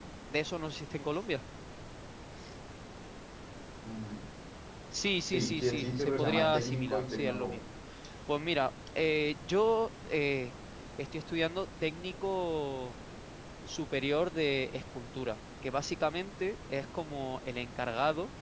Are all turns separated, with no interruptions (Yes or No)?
No